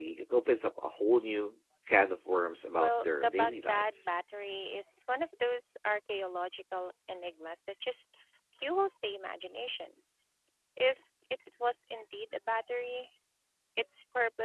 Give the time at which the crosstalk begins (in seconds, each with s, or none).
2.8 s